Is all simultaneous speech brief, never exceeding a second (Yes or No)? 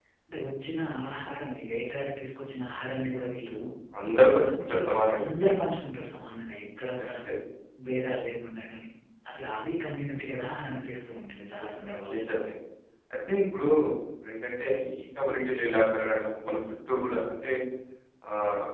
Yes